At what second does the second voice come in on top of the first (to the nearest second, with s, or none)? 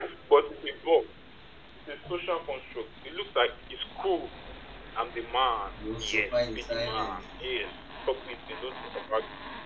6 s